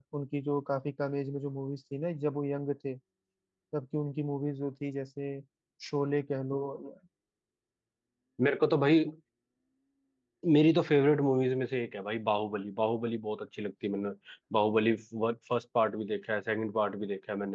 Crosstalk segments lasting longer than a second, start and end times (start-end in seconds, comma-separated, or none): none